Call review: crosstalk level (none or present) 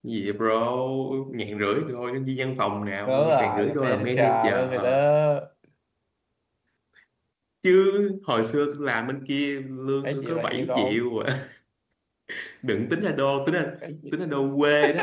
present